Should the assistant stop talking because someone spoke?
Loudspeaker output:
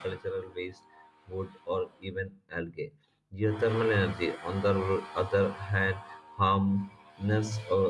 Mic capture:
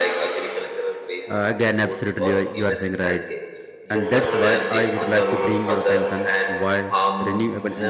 Yes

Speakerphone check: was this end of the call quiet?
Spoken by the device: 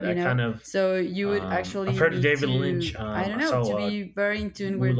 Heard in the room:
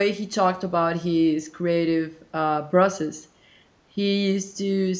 No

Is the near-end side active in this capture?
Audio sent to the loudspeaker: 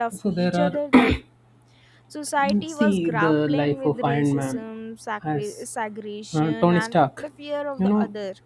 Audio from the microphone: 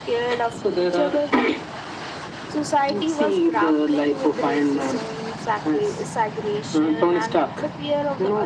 No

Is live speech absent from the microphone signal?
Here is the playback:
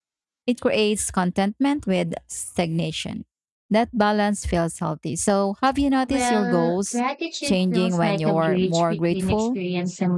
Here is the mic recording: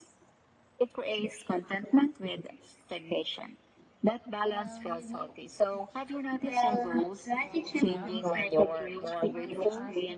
No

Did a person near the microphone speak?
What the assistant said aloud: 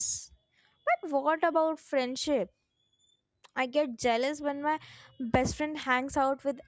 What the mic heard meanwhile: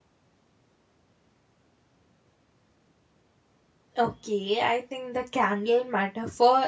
Yes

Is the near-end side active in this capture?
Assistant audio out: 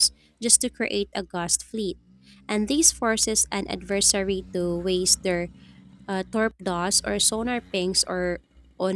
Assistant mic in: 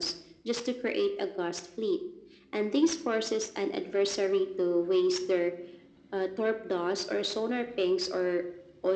No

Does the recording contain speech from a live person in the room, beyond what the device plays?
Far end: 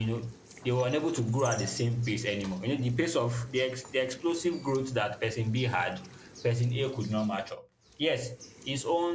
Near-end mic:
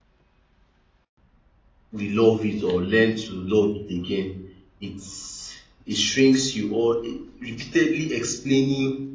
Yes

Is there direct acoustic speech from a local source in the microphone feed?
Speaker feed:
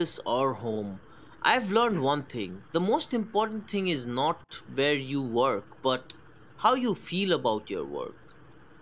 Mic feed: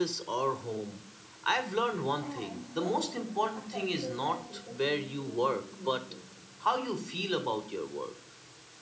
Yes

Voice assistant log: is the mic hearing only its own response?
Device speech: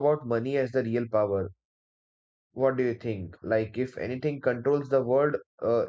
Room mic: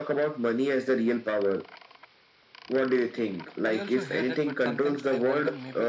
No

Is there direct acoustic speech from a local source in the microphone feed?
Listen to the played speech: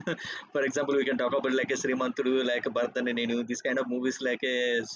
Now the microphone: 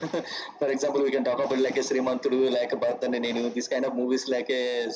No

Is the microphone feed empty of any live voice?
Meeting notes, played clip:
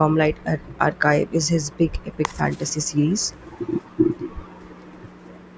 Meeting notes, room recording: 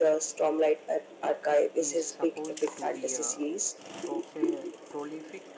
No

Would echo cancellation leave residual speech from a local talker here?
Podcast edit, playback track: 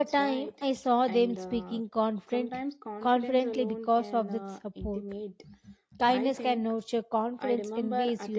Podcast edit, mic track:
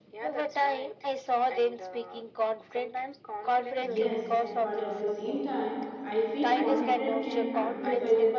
Yes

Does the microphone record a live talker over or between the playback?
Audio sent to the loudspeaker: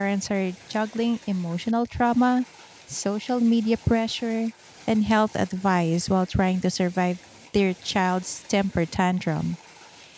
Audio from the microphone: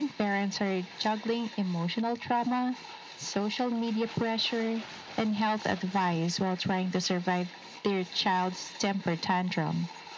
No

